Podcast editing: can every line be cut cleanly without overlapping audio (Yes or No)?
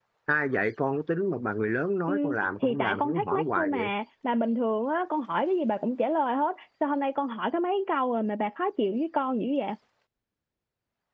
No